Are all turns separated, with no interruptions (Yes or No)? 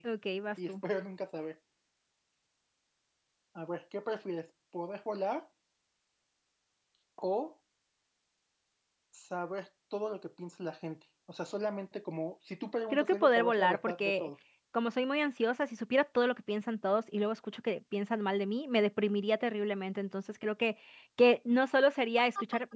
No